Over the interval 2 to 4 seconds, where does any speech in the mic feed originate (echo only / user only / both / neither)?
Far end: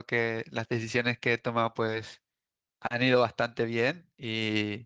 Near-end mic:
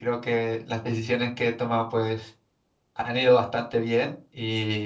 echo only